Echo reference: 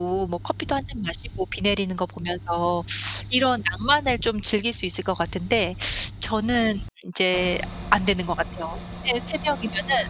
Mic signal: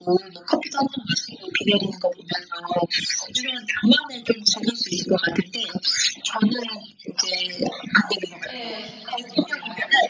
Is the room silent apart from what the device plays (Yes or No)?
No